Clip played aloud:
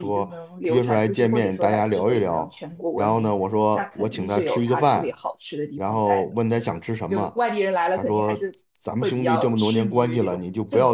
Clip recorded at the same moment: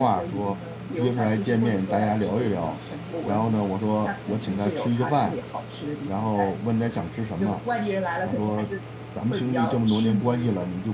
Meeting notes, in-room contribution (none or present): none